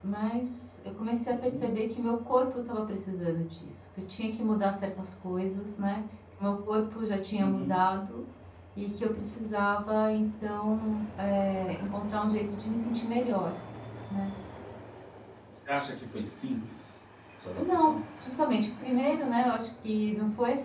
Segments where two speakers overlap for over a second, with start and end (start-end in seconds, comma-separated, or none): none